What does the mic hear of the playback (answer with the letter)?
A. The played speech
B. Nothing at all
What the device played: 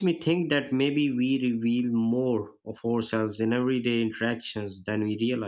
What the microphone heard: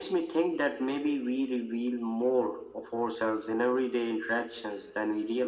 A